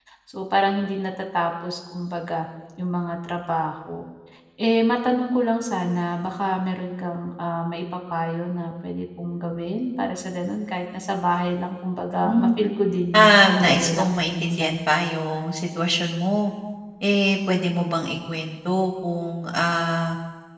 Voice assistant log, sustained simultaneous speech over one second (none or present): present